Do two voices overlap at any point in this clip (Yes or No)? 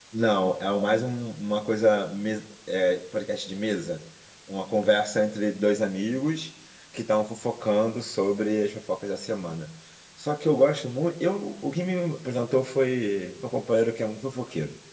No